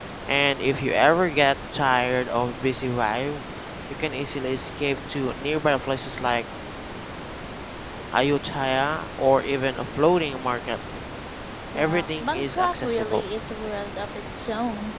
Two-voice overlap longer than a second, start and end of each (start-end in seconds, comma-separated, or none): 11.8-13.2